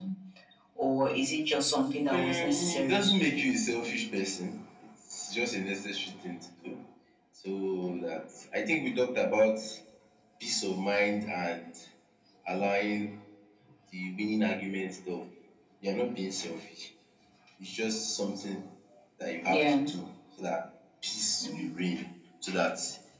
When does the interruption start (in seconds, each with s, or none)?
2.1 s